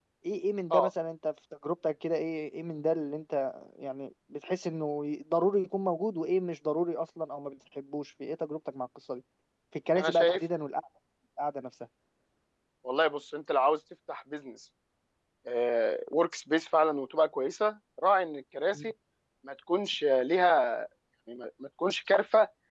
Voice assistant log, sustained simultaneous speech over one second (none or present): none